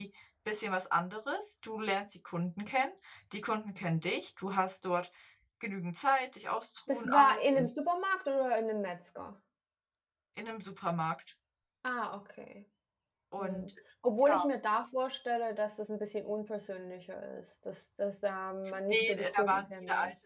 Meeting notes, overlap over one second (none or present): present